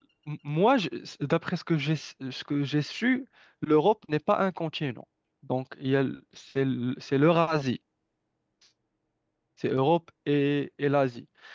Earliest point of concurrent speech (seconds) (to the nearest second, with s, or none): none